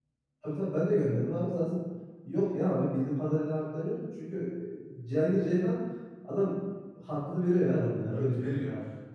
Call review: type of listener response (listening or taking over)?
taking over